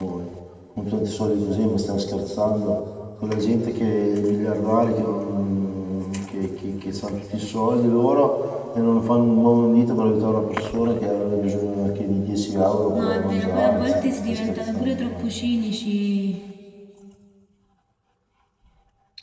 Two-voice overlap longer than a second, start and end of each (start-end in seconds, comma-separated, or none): 13.0-15.3